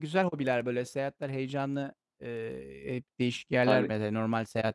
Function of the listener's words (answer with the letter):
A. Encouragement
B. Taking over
A